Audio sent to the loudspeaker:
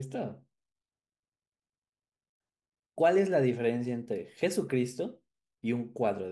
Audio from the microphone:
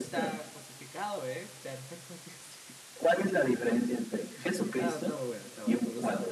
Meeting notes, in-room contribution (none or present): present